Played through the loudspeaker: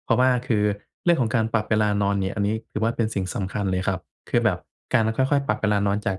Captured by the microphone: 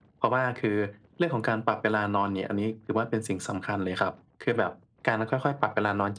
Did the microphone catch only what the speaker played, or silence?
Yes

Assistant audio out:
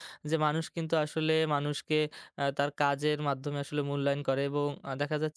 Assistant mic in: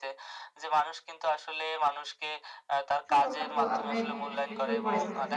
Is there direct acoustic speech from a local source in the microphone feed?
Yes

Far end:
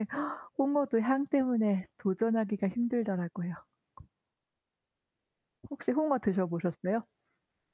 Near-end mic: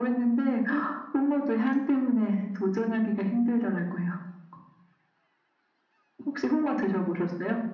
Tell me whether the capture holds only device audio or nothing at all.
Yes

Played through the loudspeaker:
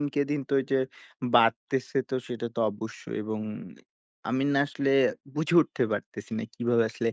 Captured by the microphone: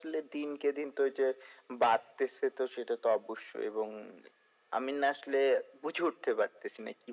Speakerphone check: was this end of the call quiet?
Yes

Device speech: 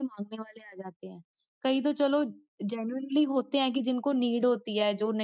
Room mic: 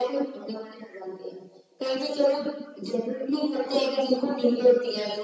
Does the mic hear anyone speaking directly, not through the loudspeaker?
No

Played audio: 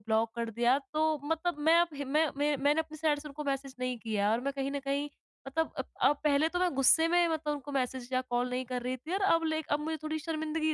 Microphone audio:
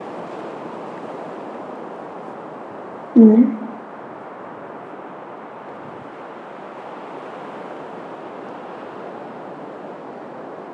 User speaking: Yes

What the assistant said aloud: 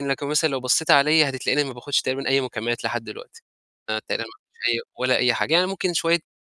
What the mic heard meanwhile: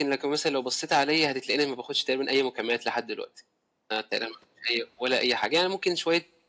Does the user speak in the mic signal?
No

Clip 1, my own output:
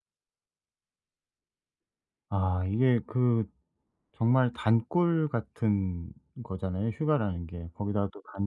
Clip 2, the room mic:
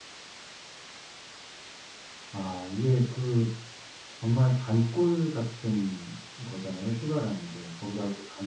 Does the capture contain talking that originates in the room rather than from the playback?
No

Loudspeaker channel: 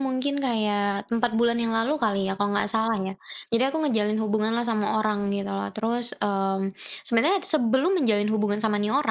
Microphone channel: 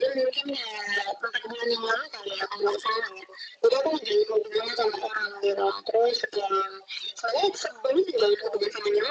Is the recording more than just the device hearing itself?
No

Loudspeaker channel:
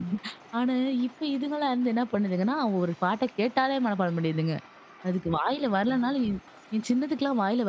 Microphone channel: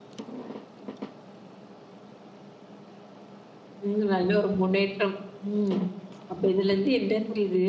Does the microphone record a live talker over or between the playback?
Yes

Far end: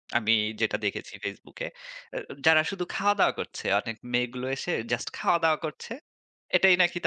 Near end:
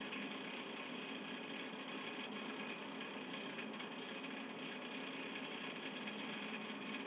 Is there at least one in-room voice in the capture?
No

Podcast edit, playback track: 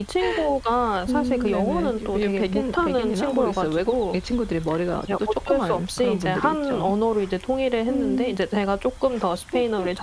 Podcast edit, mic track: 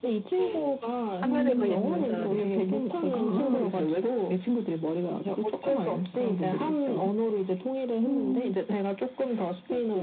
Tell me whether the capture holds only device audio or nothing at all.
No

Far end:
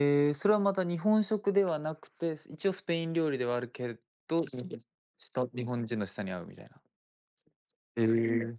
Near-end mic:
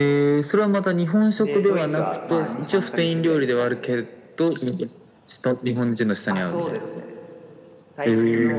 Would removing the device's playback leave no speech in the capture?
No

